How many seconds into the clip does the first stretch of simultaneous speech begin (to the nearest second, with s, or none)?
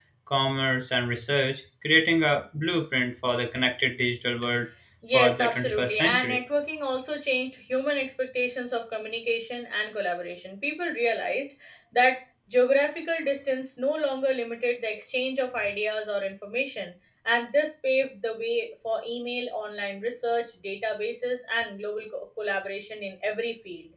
5 s